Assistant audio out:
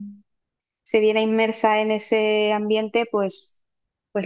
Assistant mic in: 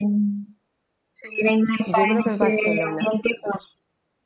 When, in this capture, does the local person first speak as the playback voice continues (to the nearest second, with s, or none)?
2 s